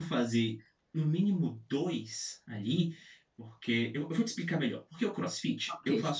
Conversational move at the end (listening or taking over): listening